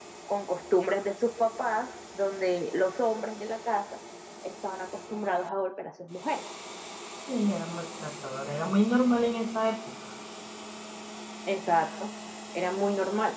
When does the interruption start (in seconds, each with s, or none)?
none